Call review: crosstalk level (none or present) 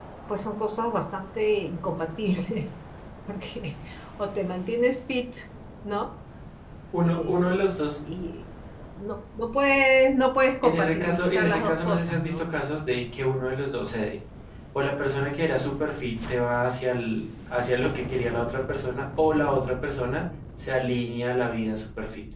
present